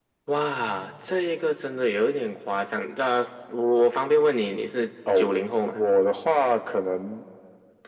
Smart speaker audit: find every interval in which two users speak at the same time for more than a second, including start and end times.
none

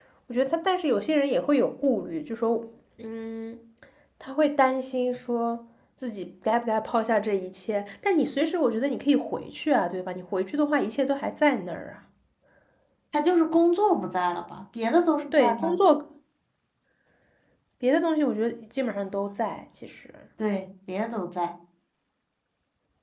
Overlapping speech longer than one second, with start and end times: none

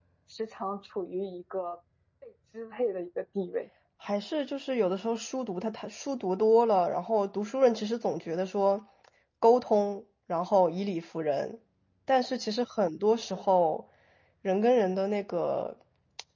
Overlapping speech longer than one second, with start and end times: none

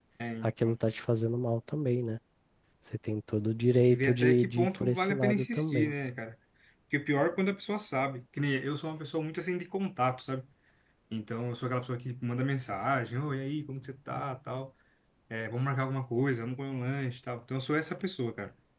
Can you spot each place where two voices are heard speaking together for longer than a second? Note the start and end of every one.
3.7-5.9

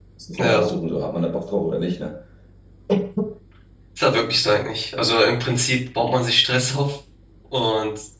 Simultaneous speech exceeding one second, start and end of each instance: none

